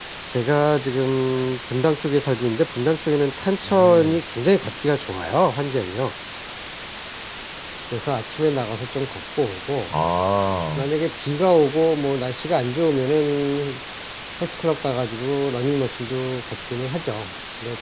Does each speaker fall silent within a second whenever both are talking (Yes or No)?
Yes